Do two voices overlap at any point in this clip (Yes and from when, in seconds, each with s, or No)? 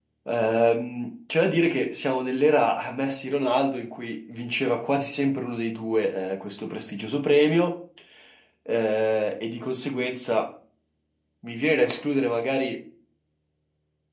No